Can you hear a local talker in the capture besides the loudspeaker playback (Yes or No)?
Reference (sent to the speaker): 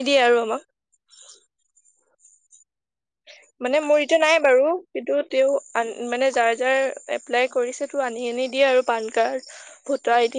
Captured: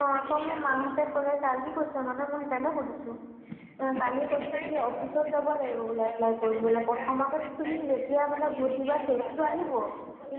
Yes